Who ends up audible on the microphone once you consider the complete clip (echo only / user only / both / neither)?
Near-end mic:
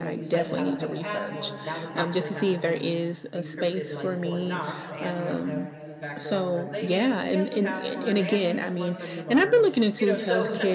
both